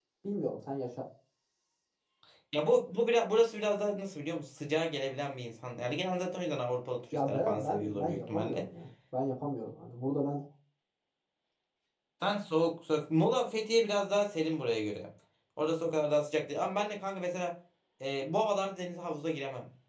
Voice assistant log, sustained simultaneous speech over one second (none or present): present